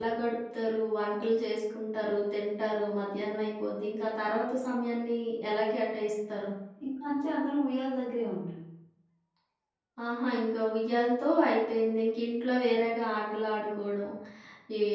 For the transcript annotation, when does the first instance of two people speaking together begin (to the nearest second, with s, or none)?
none